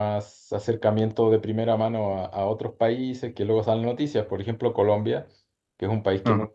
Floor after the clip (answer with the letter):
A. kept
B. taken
A